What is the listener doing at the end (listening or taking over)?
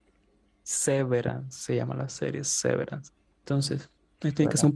listening